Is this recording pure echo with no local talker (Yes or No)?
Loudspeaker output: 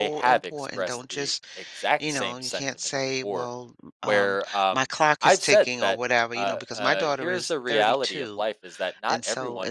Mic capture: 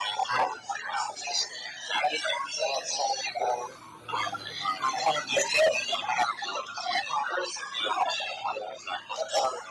Yes